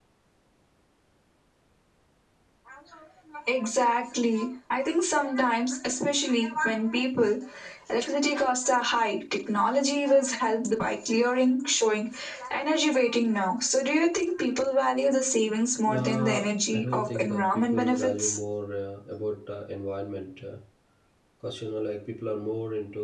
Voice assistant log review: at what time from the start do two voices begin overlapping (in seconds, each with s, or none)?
15.9 s